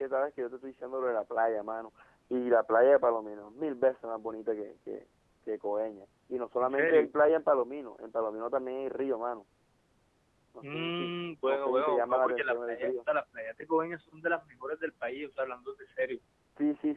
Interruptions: present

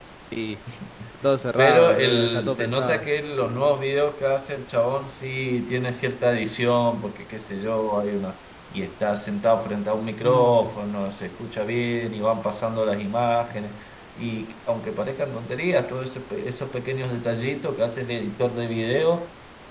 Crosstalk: present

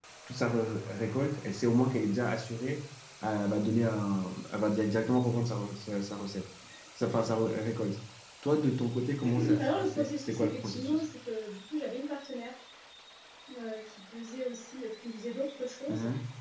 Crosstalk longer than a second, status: present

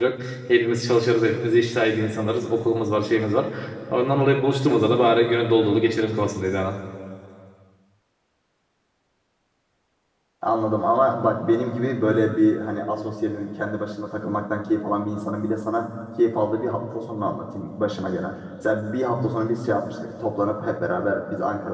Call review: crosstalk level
none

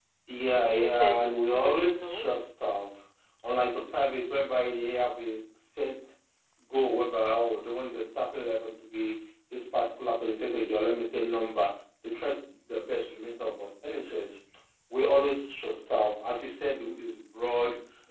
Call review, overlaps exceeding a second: present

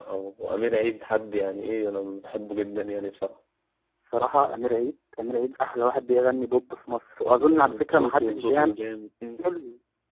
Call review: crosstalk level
present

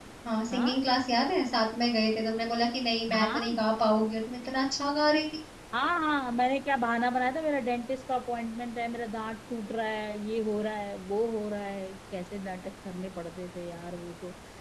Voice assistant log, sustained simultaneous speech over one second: none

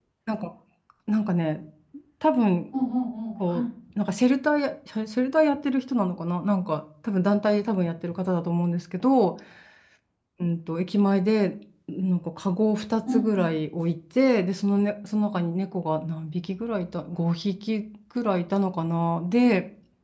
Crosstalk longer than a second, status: none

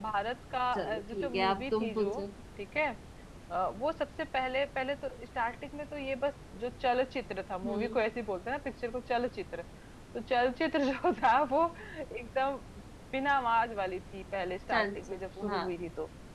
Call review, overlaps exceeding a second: present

